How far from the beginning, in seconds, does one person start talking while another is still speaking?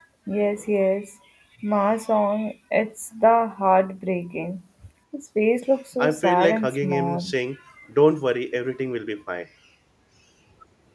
6.0 s

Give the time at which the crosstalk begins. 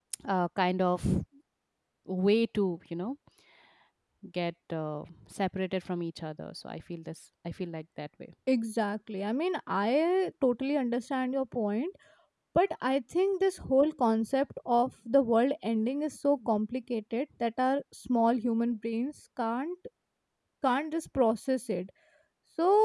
none

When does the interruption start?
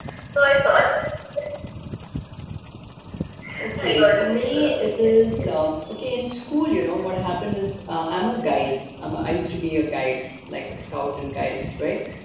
3.8 s

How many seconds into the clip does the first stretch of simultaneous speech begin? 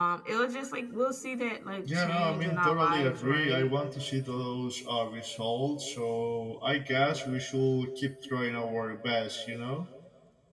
1.9 s

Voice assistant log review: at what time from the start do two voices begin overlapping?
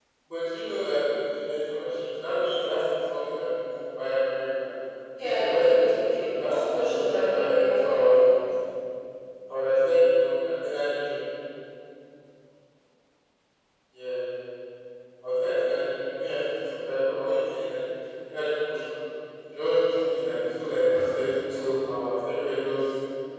5.2 s

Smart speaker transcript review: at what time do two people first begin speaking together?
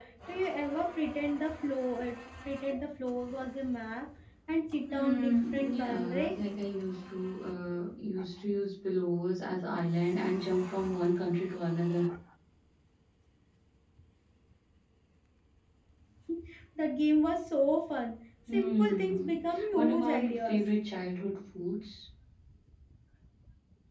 4.9 s

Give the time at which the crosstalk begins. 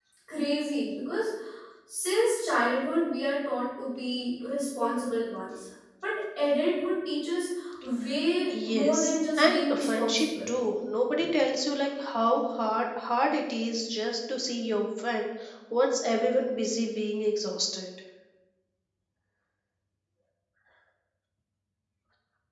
8.5 s

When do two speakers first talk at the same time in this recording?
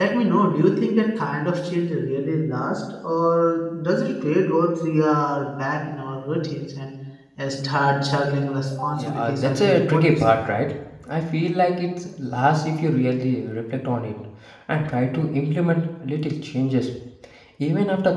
8.9 s

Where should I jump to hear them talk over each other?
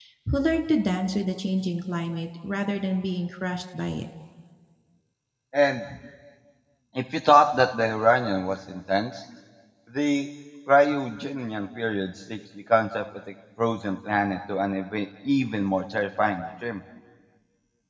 none

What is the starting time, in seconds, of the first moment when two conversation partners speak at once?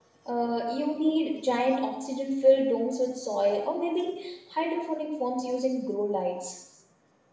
none

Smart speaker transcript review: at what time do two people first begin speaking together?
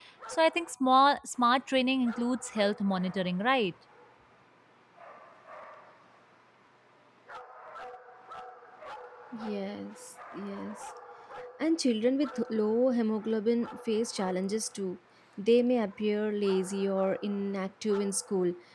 none

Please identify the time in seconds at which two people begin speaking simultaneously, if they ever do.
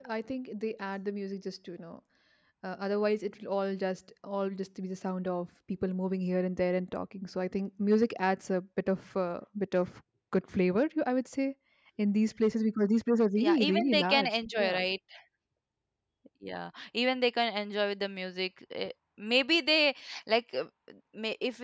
13.4 s

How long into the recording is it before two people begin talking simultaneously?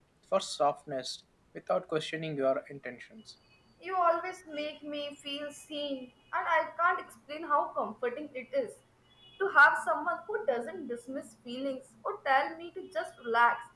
none

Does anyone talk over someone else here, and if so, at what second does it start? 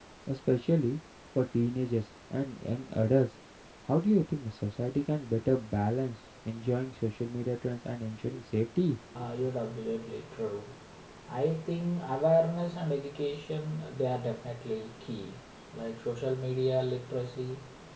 none

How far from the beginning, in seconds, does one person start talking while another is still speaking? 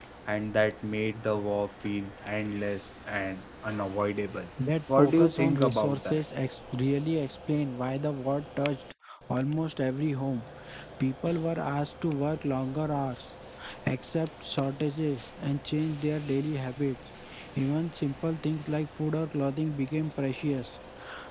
5.0 s

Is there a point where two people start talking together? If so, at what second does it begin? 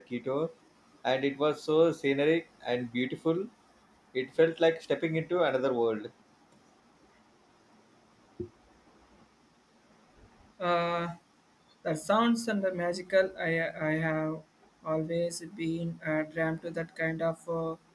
none

